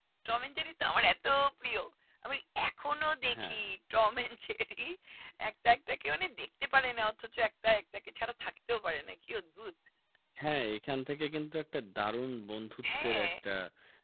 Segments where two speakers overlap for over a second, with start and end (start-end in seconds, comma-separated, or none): none